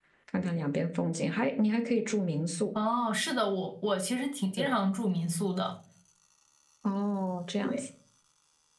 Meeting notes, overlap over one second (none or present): none